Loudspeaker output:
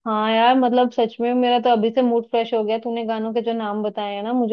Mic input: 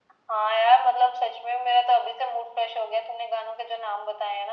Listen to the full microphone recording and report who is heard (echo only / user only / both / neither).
echo only